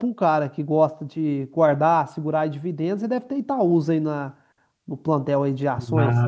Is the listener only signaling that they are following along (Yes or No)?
No